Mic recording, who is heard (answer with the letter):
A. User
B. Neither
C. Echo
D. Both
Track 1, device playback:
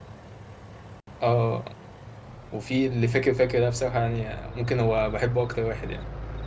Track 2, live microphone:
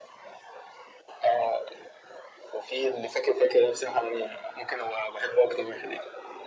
C